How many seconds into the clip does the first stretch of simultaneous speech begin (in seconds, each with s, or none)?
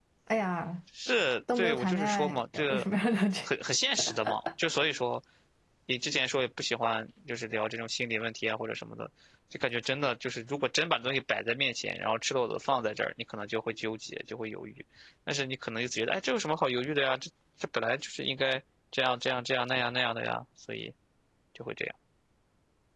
1.6 s